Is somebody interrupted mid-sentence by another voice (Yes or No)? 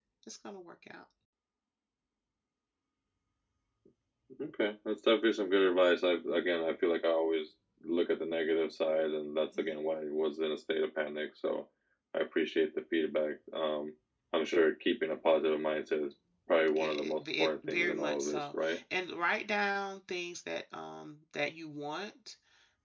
Yes